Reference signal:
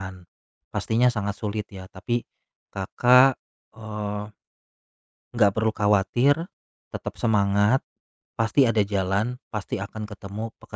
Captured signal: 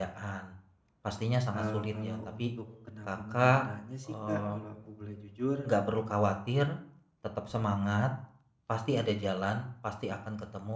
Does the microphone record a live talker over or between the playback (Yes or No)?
Yes